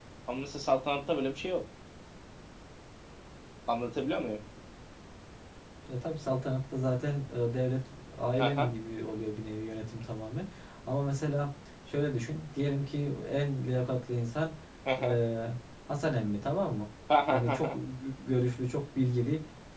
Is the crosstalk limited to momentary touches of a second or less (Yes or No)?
Yes